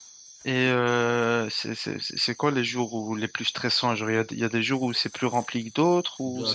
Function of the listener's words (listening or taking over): taking over